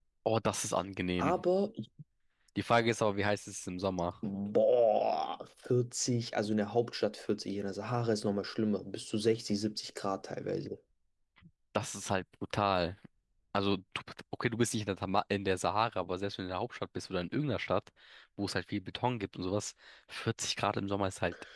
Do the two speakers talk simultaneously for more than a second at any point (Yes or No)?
No